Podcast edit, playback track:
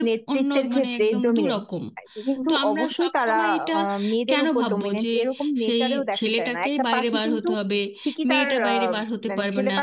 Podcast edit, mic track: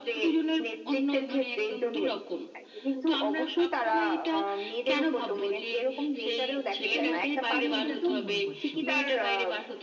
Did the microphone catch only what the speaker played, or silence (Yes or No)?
No